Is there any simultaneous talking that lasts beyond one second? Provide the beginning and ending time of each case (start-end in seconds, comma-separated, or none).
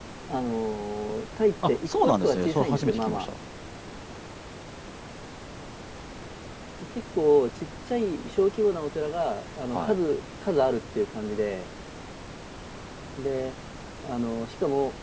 1.7-3.2